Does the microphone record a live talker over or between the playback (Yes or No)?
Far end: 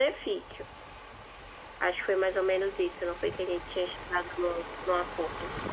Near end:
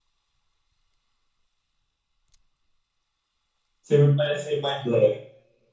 Yes